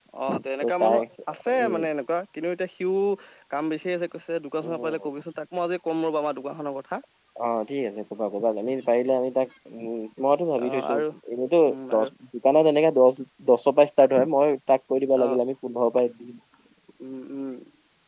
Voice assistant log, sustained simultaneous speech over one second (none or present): none